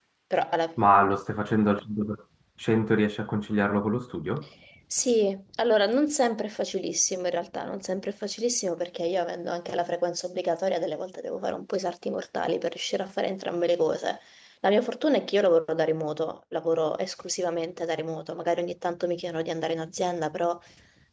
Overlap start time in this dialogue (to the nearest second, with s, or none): none